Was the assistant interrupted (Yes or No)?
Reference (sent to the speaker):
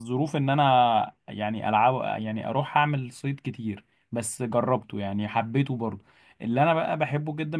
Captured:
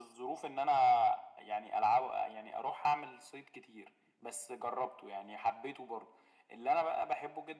No